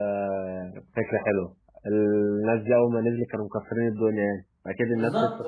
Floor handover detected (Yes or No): Yes